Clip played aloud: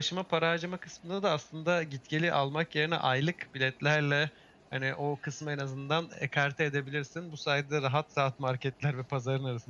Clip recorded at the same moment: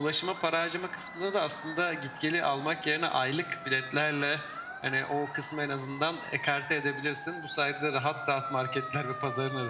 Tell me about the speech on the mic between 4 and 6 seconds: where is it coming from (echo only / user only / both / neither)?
echo only